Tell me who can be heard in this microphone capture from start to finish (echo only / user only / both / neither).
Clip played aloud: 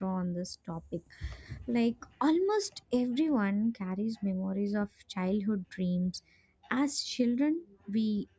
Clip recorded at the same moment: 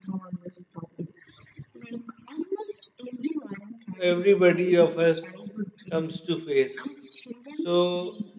both